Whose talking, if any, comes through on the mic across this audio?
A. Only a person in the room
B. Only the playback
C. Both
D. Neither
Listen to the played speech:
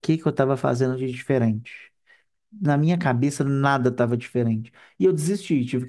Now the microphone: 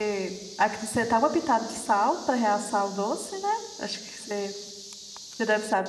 A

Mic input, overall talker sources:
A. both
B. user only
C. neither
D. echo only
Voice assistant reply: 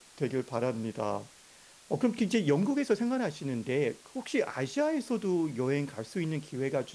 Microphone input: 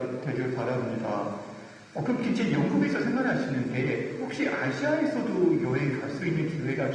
D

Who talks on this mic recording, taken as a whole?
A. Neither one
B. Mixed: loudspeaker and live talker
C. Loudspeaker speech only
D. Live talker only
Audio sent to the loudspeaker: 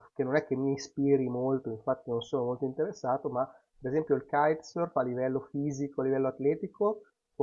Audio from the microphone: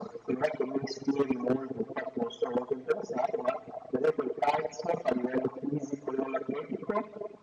C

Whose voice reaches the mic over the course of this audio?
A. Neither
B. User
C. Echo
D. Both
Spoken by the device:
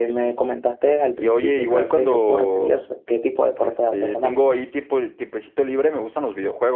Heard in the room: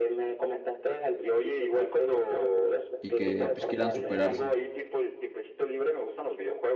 D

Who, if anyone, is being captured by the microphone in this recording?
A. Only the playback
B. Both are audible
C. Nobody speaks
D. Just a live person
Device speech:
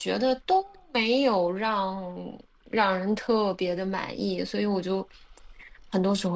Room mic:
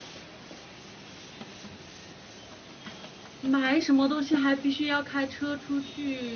D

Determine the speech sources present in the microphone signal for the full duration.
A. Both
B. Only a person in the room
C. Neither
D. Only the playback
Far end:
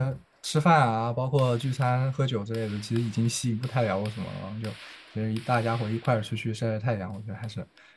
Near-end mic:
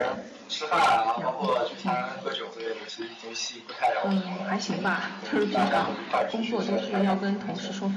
A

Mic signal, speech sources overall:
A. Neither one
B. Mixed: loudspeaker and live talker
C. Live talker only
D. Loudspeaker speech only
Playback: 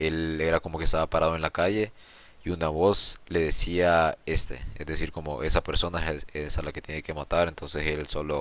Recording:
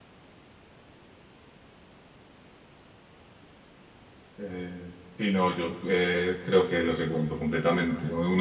C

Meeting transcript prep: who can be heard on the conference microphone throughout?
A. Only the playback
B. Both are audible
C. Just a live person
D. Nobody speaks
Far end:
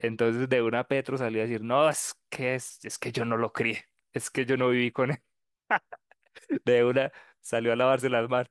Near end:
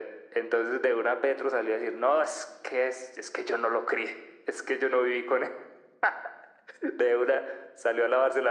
A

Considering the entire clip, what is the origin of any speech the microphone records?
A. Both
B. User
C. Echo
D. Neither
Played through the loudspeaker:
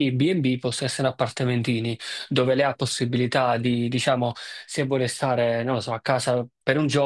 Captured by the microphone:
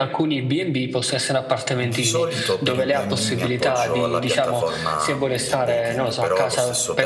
A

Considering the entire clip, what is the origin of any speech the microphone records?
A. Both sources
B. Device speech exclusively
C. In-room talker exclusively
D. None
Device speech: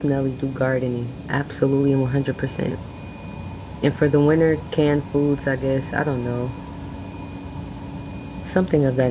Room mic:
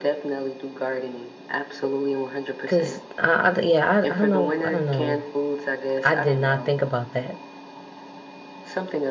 A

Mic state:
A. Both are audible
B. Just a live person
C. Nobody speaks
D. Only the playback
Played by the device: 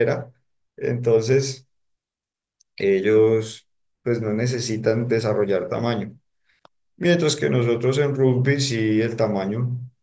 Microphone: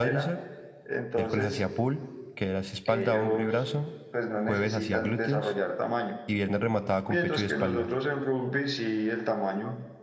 A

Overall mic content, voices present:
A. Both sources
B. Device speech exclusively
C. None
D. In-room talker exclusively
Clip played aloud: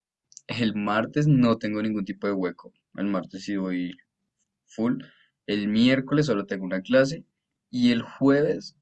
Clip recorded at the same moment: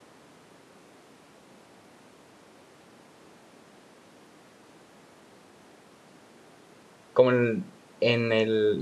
D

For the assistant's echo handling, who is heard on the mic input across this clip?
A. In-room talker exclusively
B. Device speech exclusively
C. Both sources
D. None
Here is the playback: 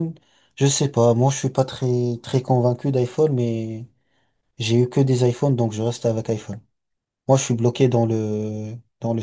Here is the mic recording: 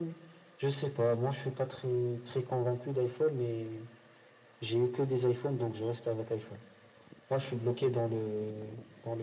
B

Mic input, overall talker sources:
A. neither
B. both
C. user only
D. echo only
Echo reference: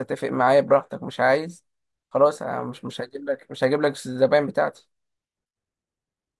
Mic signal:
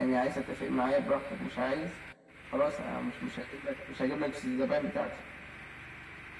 D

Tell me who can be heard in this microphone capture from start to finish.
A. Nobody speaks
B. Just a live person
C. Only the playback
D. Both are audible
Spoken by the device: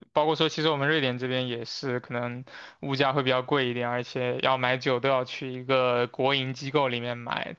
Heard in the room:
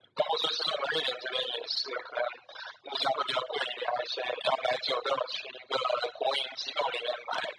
C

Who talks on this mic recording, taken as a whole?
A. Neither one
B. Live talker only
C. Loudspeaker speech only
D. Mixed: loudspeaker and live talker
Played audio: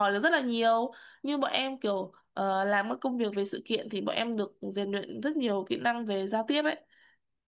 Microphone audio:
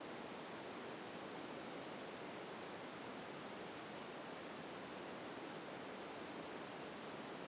A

